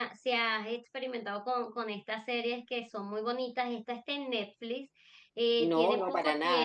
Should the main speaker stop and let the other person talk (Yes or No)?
Yes